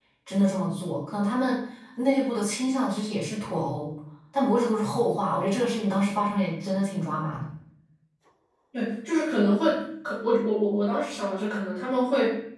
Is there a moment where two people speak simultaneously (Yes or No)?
No